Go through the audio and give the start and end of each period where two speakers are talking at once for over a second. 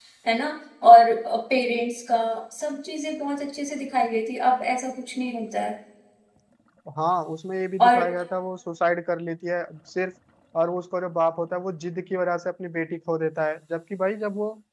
none

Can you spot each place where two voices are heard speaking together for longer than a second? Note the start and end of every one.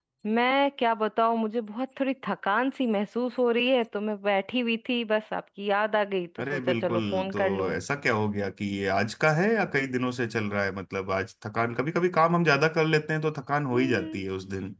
6.4-7.7

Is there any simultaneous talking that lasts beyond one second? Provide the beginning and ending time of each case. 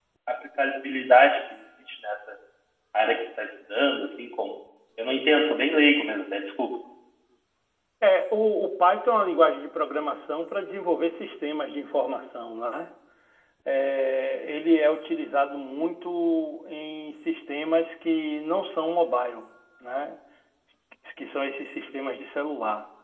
none

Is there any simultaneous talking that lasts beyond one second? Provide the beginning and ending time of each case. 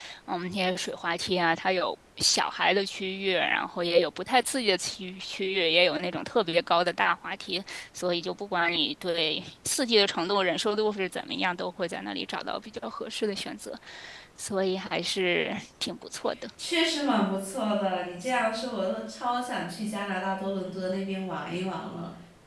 none

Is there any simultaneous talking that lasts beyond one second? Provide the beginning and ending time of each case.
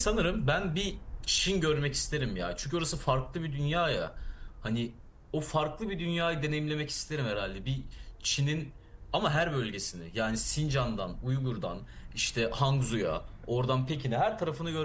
none

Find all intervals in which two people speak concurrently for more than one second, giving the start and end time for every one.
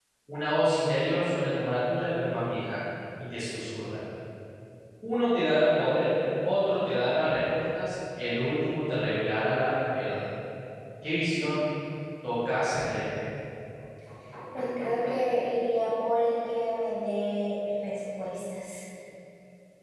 none

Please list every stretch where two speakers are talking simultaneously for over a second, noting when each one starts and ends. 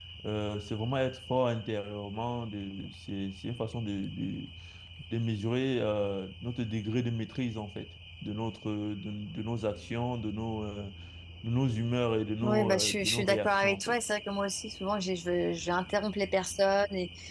12.4-13.9

